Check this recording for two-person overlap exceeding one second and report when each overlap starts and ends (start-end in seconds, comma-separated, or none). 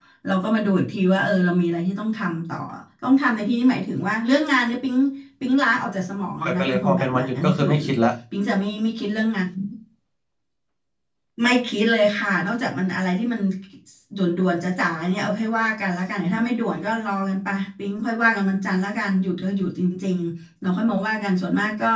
6.4-7.7